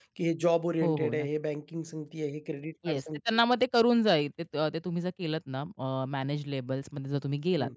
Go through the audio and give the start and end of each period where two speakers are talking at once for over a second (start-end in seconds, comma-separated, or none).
none